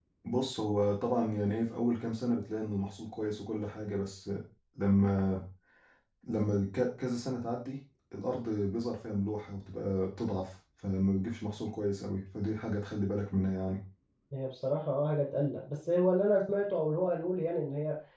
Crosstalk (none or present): none